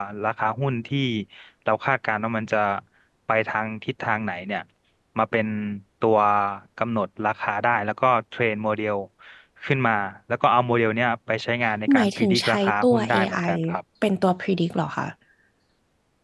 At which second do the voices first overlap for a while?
12 s

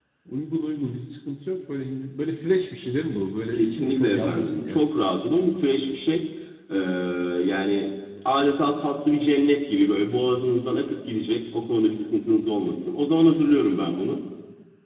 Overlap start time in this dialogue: 4 s

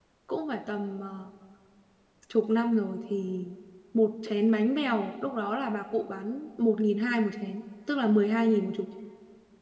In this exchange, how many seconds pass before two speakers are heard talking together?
none

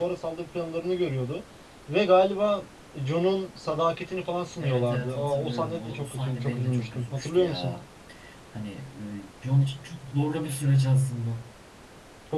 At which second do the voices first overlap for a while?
5 s

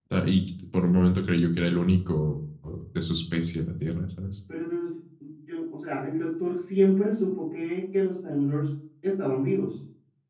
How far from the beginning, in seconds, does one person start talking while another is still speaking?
none

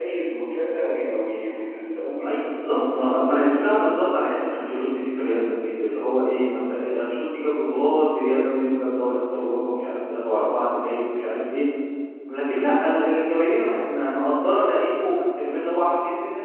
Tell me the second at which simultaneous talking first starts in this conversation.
2 s

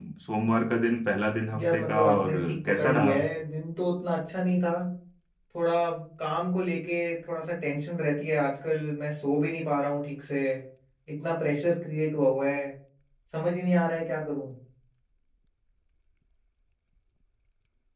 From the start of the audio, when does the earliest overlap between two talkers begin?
2 s

